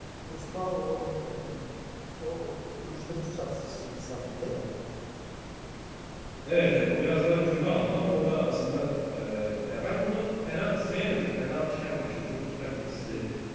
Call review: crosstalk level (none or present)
none